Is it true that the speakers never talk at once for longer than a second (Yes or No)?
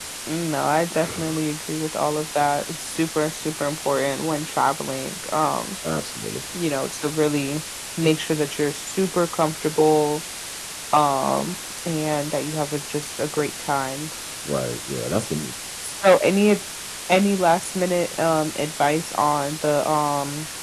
Yes